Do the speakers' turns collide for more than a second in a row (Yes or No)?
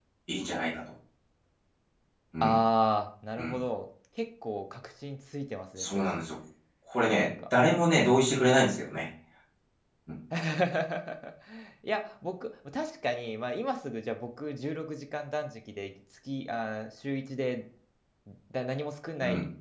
No